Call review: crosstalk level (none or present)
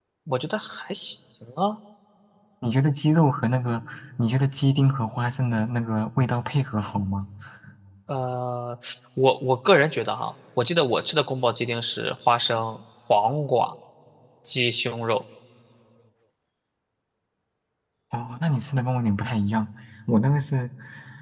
none